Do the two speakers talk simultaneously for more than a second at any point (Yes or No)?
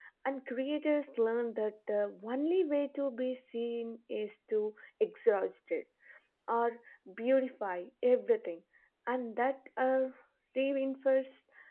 No